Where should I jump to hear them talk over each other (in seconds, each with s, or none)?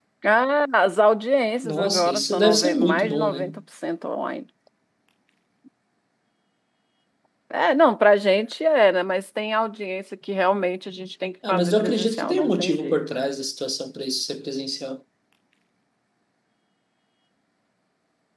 1.6 s